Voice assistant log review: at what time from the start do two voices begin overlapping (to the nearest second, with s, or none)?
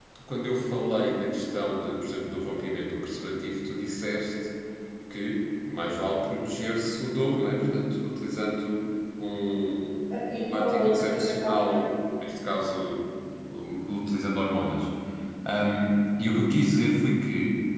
10 s